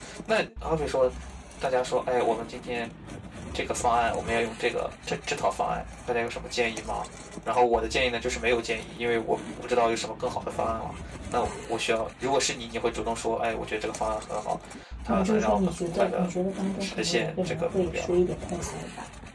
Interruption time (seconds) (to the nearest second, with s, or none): 15 s